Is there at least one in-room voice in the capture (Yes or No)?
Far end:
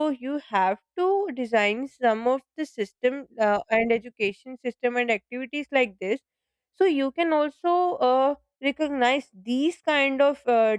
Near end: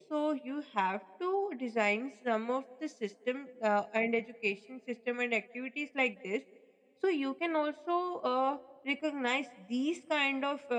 No